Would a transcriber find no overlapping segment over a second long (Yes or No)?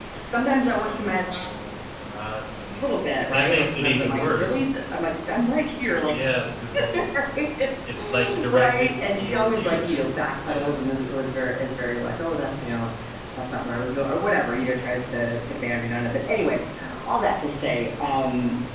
No